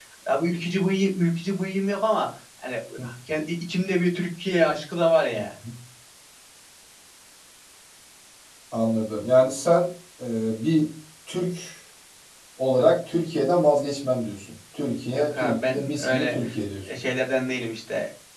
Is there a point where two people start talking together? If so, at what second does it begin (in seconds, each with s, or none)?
15.1 s